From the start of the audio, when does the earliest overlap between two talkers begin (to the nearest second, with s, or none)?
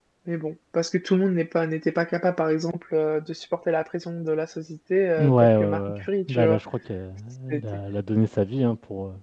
5 s